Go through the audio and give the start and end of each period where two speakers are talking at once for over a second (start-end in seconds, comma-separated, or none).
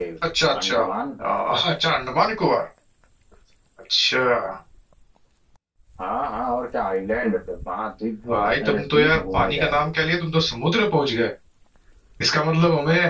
8.3-9.9